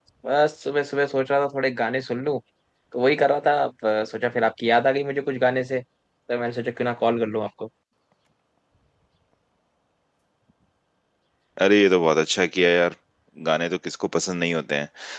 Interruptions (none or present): none